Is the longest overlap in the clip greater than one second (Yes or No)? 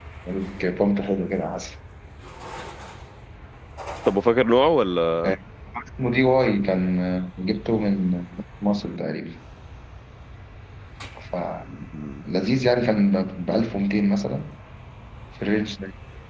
No